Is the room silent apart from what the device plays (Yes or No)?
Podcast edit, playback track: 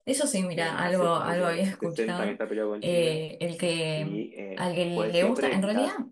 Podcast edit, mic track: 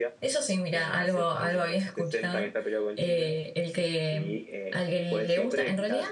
Yes